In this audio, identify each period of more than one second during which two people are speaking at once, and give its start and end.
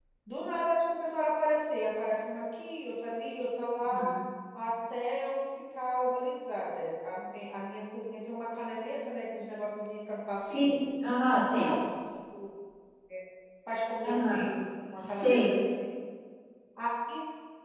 none

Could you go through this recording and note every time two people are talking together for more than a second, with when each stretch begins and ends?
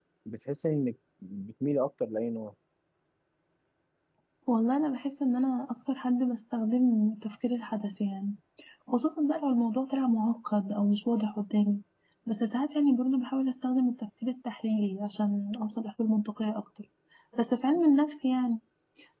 none

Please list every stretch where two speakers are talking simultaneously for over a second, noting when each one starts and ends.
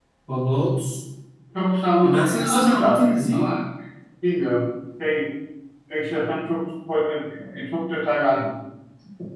2.0-3.5

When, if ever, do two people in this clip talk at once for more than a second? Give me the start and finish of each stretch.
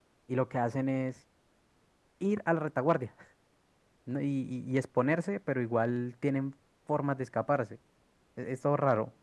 none

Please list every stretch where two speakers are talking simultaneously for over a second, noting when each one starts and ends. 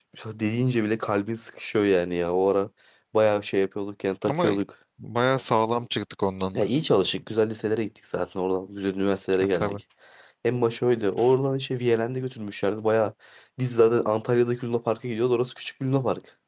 none

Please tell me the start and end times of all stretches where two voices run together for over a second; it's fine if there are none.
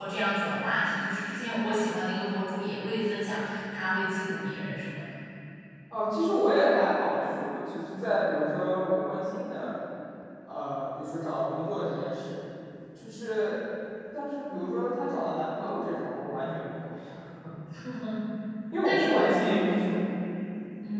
none

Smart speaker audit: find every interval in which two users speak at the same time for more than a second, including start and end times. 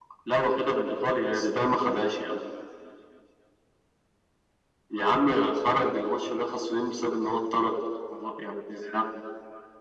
none

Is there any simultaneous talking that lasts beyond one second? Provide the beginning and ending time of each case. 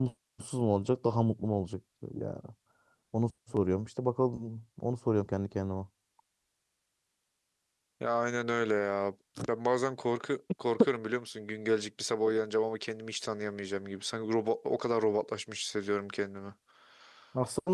none

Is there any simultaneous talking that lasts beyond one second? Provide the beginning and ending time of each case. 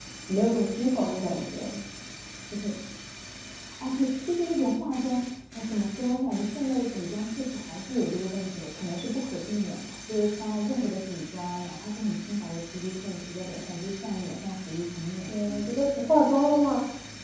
none

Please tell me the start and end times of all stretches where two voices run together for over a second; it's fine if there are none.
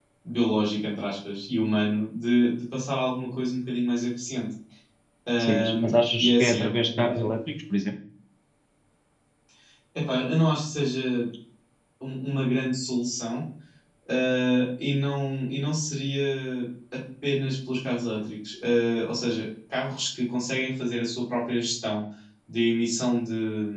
5.4-7.1

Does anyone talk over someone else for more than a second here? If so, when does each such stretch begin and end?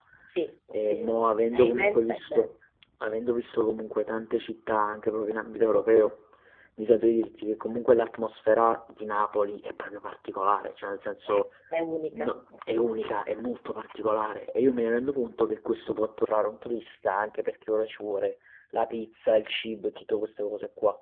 0.8-2.5

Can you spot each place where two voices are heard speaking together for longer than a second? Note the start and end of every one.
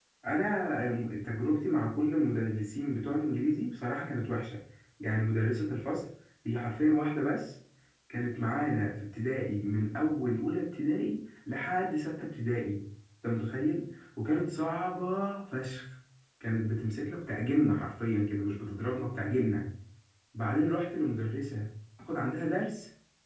none

